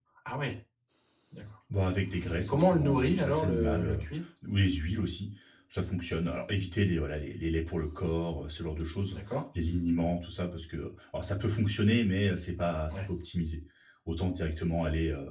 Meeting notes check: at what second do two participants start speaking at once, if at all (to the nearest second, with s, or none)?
2 s